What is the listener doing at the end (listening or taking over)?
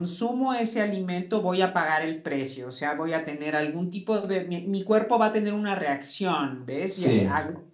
listening